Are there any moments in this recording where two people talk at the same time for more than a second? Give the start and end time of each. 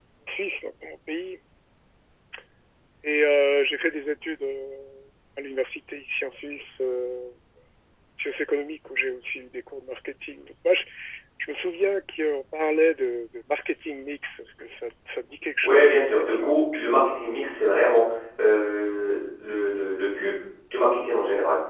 15.6-16.9

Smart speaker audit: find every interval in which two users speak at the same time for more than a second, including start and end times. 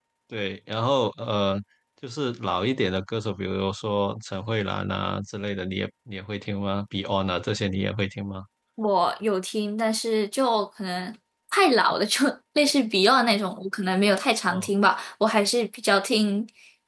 none

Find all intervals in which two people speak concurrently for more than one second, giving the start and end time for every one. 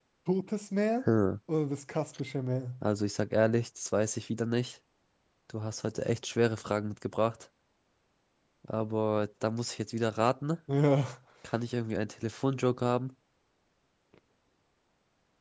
none

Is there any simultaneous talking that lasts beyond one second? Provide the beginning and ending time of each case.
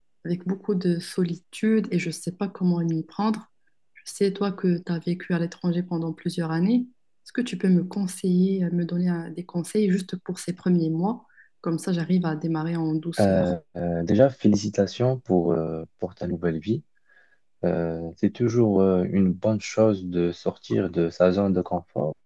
none

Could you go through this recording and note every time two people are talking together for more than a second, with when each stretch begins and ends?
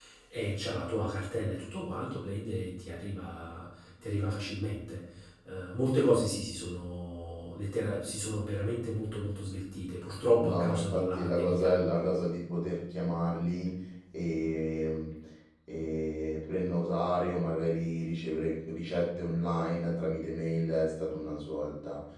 10.3-11.7

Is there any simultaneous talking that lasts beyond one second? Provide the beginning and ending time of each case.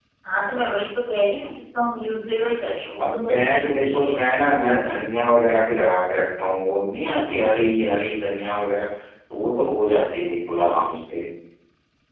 3.0-5.1

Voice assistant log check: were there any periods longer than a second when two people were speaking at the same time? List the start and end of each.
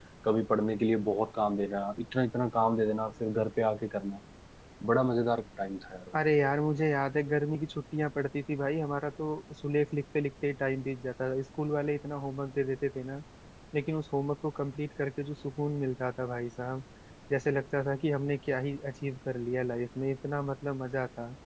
none

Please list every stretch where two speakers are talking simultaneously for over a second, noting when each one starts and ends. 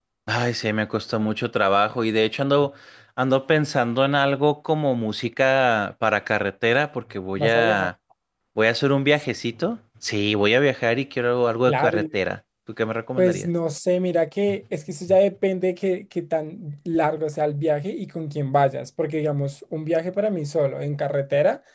none

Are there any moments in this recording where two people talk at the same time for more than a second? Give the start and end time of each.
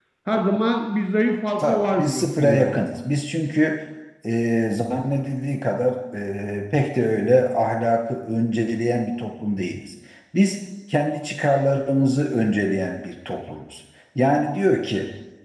1.6-2.8

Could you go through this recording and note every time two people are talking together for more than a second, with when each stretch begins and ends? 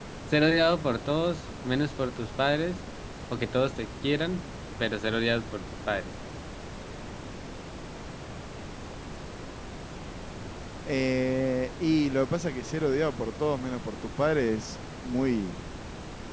none

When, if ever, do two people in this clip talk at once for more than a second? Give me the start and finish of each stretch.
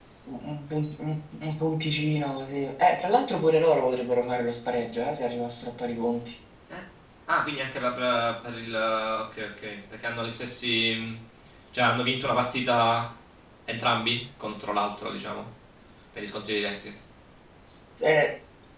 none

